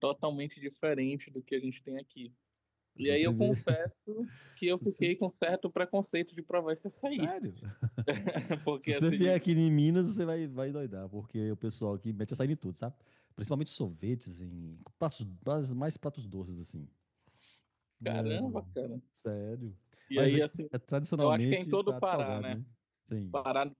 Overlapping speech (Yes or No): Yes